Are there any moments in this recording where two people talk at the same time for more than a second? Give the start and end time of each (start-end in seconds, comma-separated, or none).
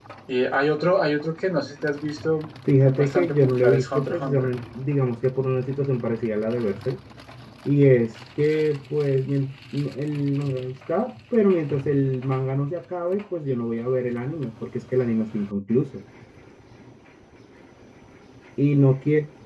2.8-4.5